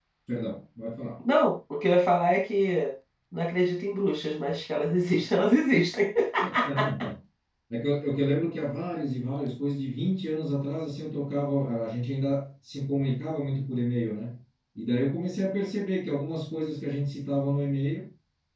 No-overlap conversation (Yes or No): Yes